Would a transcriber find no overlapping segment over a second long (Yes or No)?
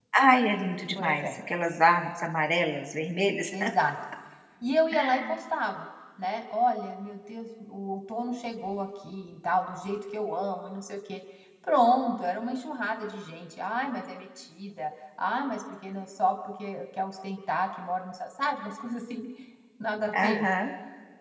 Yes